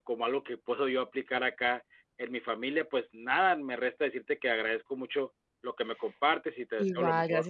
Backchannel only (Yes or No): No